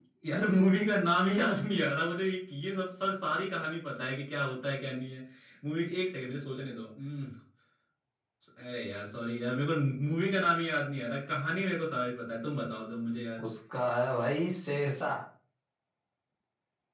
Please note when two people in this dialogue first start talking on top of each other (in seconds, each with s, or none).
none